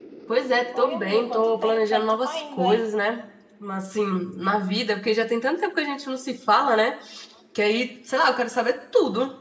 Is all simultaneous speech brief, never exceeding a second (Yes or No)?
No